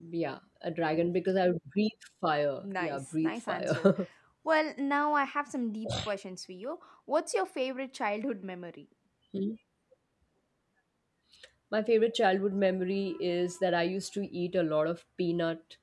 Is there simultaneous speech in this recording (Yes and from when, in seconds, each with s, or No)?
Yes, from 2.6 s